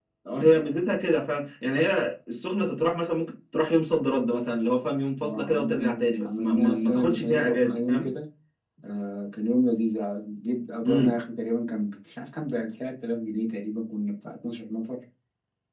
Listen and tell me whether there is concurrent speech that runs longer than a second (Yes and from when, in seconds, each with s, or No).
Yes, from 5.2 s